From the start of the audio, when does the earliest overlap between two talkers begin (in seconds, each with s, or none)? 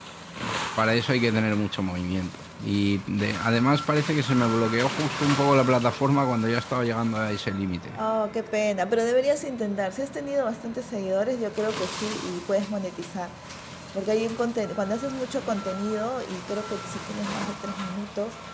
none